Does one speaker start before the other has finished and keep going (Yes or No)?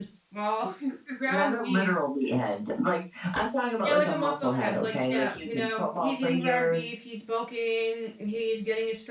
Yes